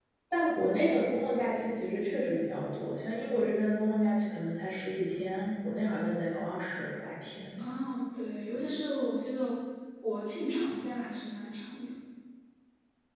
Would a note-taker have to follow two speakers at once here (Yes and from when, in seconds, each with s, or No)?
No